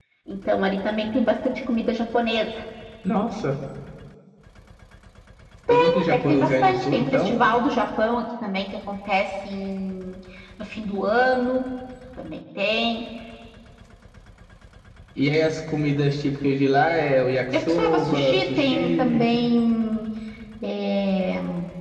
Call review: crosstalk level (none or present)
present